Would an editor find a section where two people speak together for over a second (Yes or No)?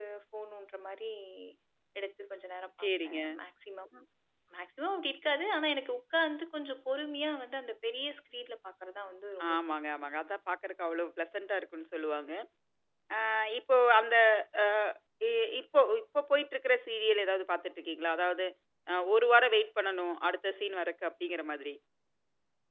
No